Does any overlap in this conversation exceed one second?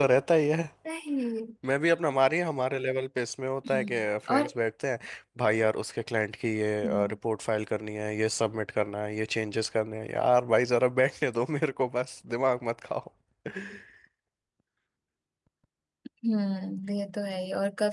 No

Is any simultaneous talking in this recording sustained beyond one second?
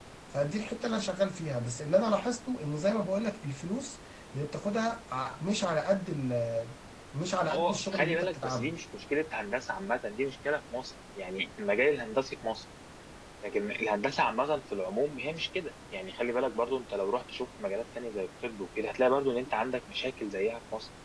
Yes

